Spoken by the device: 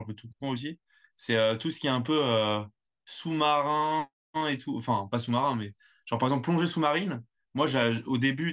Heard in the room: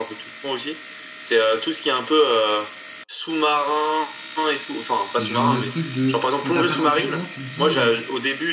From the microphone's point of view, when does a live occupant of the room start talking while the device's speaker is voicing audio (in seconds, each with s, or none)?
5.2 s